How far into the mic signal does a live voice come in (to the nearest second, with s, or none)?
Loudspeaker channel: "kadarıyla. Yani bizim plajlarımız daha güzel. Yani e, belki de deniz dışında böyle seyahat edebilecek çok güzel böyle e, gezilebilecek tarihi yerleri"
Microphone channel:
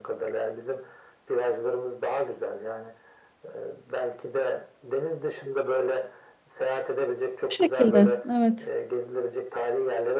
7 s